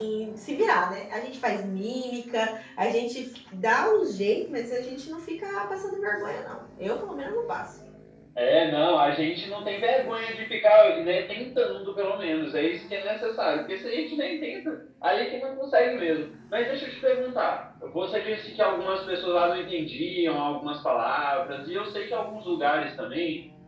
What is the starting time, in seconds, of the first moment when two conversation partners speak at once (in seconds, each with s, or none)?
none